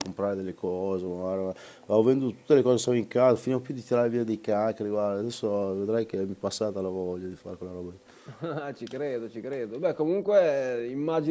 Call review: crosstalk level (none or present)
none